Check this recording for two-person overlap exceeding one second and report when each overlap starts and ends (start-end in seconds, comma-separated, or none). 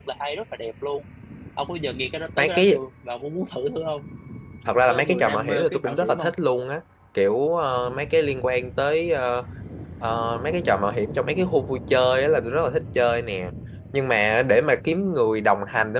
4.9-6.3